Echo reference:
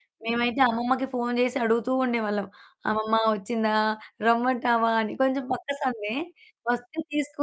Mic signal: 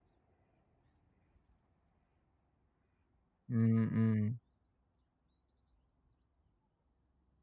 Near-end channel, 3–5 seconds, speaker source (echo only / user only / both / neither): user only